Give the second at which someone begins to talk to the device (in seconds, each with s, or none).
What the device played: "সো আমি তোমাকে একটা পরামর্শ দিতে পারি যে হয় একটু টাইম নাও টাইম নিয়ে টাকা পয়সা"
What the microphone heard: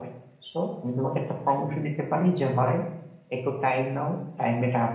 none